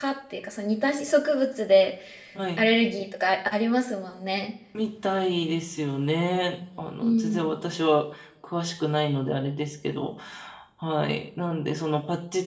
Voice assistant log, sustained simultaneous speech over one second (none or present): none